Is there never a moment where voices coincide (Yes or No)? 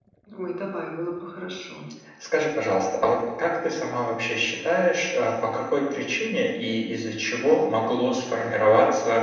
Yes